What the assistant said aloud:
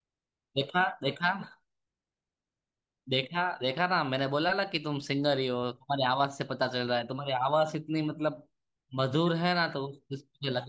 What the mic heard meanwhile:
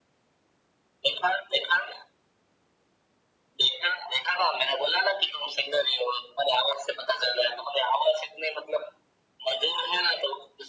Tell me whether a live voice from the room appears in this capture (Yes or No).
No